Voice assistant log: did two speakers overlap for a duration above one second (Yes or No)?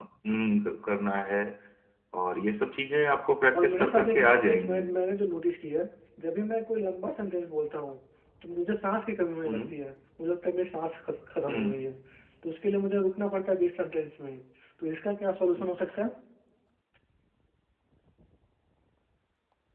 Yes